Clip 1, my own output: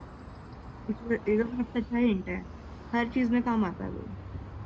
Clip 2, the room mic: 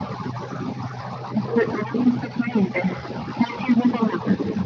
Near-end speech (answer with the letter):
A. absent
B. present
A